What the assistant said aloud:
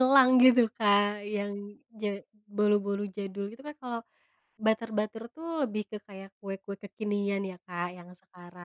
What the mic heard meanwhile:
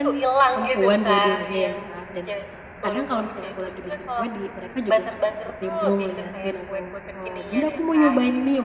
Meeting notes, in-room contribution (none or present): present